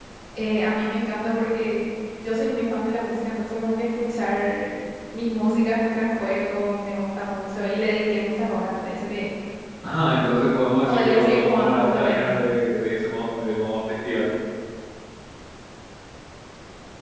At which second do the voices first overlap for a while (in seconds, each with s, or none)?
10.9 s